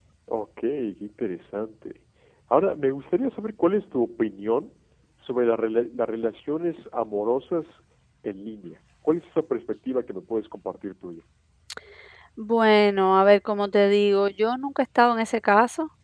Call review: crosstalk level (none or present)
none